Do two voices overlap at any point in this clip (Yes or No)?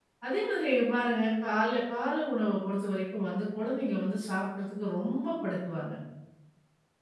No